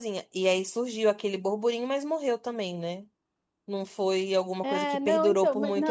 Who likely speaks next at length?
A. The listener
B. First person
A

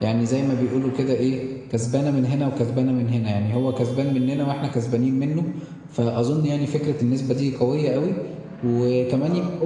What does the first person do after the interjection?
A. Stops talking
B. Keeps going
B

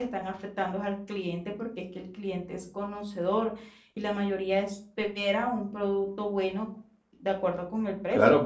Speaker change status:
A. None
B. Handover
B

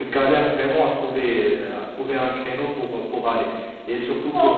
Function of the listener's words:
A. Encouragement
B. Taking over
A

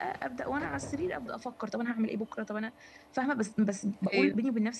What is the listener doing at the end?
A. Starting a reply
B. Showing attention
B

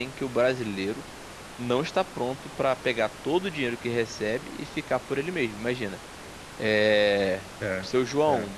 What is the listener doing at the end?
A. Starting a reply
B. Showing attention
B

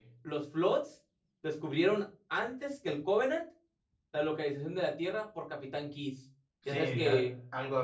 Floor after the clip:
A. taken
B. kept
A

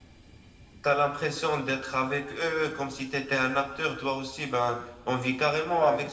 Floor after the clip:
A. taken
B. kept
B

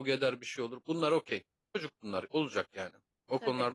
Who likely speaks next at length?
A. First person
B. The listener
A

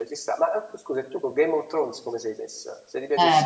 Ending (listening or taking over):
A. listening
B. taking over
B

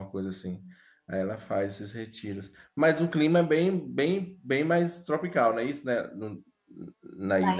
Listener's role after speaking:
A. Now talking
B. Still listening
A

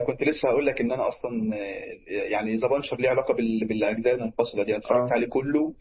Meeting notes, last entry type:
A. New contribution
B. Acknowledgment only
B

